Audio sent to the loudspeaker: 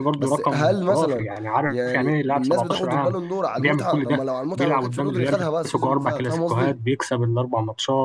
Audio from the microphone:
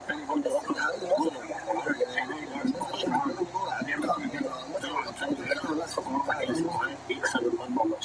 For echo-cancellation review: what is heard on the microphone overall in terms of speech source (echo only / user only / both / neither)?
echo only